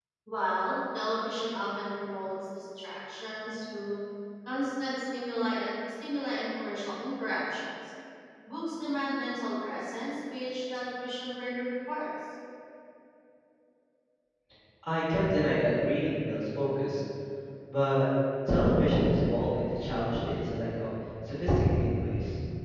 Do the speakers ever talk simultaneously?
No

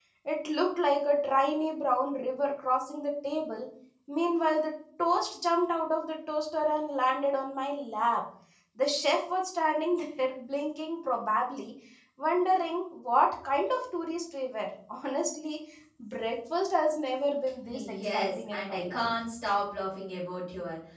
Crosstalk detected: Yes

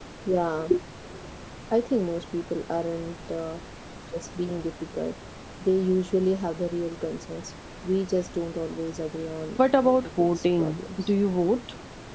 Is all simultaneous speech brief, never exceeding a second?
No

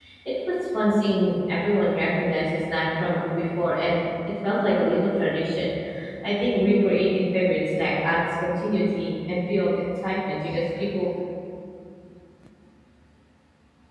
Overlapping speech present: No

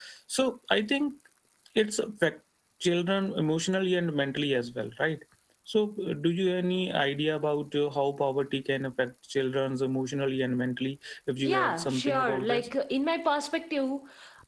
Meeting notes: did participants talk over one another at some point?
Yes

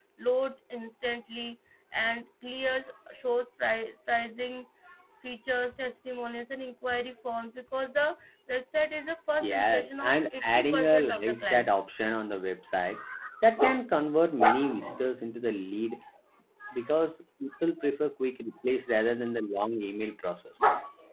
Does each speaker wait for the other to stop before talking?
No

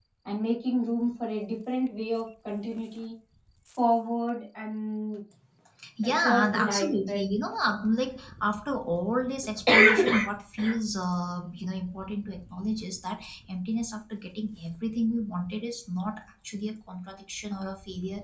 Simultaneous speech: Yes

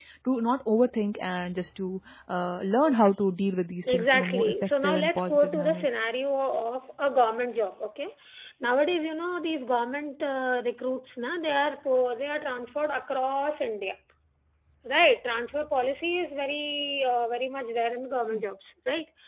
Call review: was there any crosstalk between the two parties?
Yes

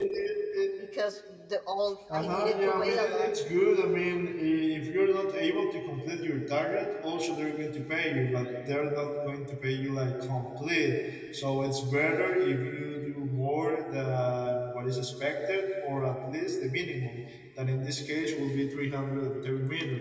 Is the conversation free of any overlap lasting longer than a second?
No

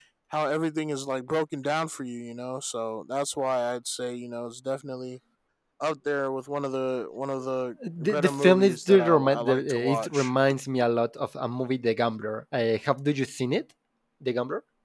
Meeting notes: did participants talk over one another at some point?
Yes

